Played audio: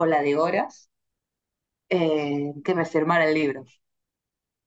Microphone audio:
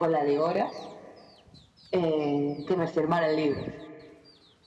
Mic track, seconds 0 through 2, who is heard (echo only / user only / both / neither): echo only